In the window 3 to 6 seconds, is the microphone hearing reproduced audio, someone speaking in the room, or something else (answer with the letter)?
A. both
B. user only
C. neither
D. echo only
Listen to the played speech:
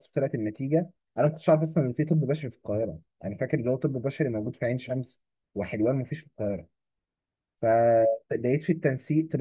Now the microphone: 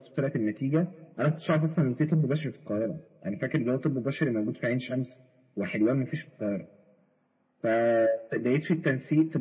D